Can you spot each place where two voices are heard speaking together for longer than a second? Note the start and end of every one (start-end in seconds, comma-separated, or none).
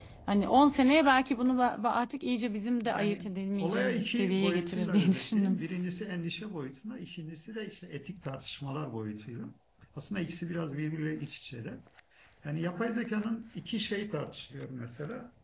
2.9-5.6